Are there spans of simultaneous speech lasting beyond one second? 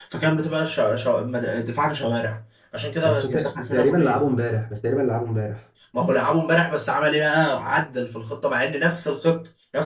Yes, from 3.0 s

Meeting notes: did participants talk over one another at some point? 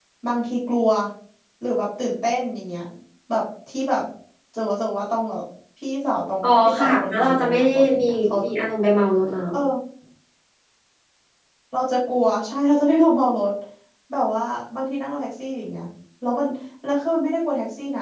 Yes, from 6.4 s

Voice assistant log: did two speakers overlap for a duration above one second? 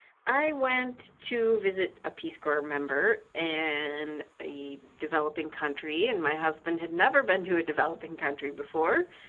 No

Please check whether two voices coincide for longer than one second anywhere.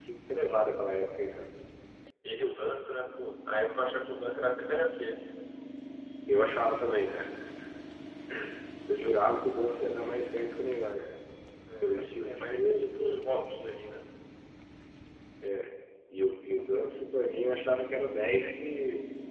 Yes, from 11.8 s

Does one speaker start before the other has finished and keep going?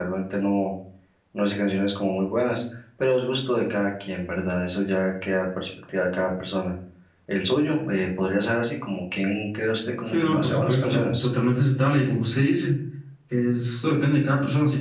Yes, from 10.1 s

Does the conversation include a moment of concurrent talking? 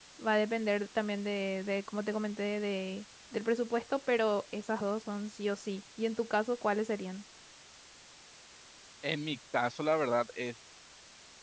No

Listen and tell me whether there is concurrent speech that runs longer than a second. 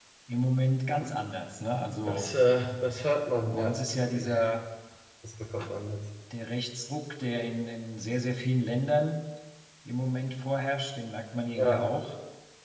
No

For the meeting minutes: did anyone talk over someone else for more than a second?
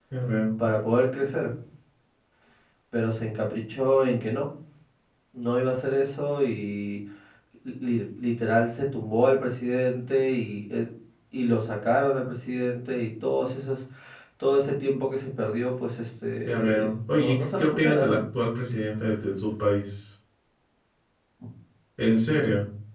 Yes, from 16.5 s

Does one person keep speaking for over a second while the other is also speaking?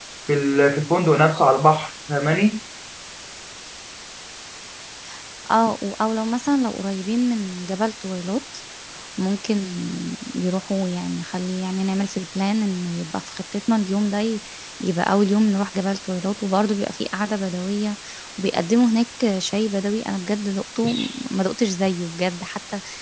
No

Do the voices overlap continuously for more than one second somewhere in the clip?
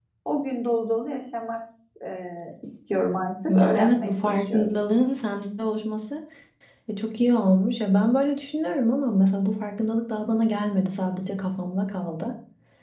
Yes, from 3.5 s

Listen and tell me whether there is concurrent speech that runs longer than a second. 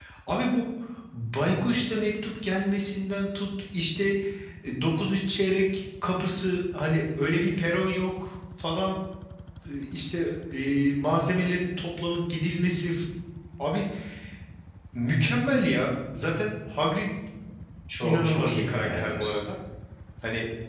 Yes, from 18.0 s

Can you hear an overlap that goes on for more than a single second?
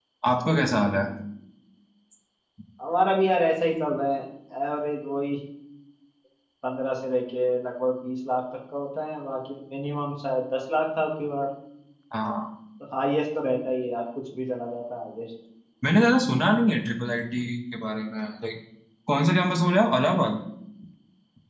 No

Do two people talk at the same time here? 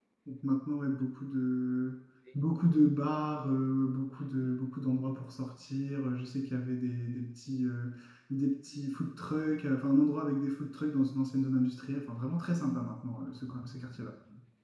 No

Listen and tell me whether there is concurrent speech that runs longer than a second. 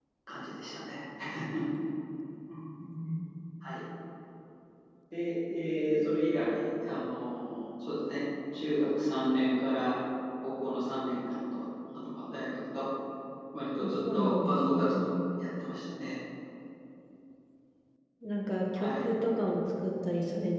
Yes, from 13.8 s

